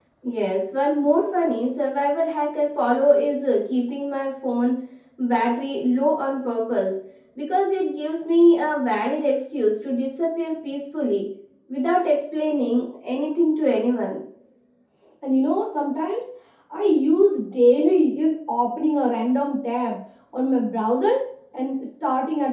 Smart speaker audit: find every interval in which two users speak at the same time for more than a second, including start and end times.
none

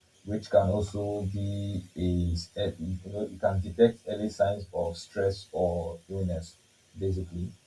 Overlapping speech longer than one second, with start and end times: none

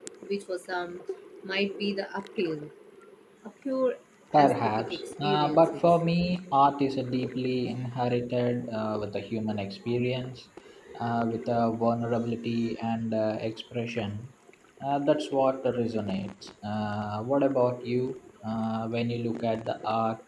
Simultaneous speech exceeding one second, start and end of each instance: 4.4-5.9

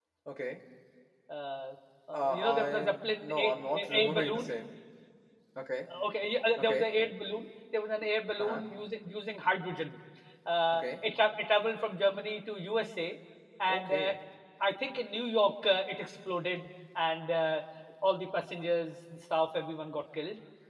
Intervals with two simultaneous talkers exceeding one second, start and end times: 2.1-4.5

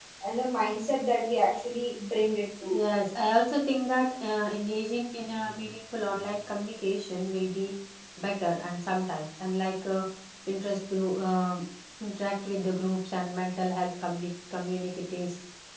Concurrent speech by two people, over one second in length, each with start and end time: none

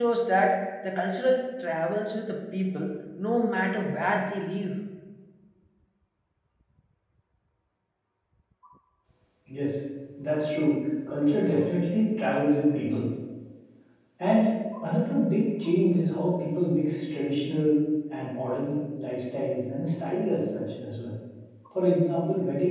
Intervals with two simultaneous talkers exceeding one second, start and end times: none

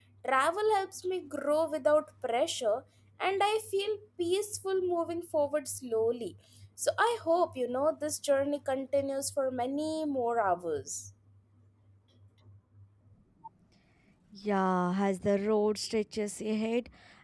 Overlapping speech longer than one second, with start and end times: none

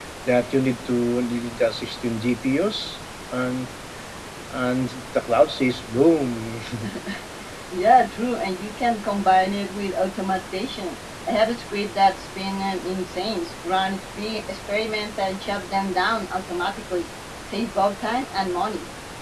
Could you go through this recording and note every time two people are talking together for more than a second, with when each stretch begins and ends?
none

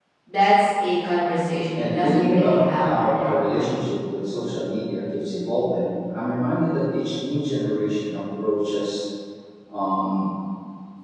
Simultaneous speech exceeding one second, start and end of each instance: 1.7-3.8

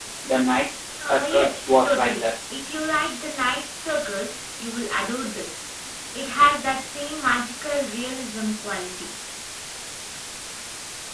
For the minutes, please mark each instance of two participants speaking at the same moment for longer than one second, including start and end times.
1.0-2.2

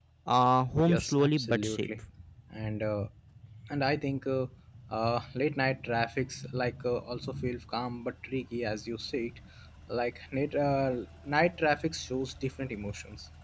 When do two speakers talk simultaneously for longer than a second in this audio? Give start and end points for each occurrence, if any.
0.8-2.0

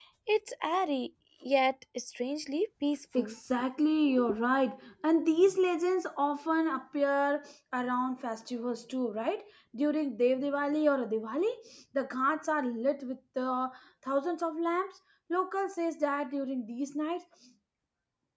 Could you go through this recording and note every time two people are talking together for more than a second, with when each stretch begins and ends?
none

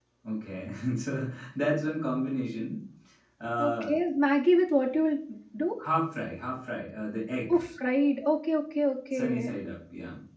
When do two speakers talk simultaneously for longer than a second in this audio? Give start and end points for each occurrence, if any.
none

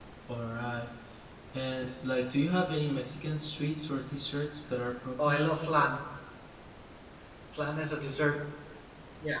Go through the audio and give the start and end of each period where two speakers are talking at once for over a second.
none

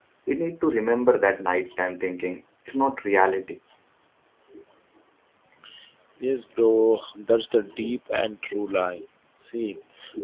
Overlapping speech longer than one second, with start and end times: none

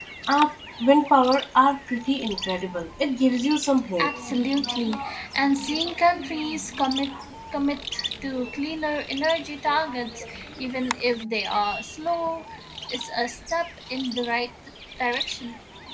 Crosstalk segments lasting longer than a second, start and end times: none

